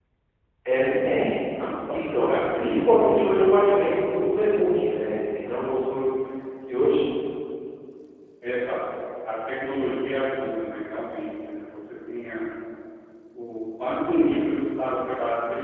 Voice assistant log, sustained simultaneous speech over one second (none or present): present